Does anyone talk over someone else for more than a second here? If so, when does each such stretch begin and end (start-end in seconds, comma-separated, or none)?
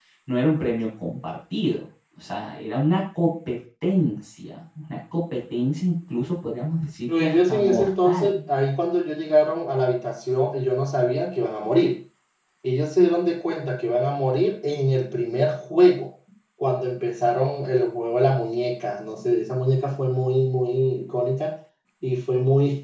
7.1-8.4